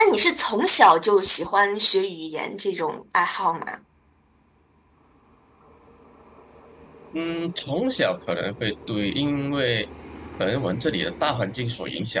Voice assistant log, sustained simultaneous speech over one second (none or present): none